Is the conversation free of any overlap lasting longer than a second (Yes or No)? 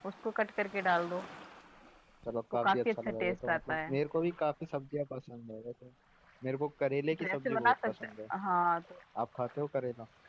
No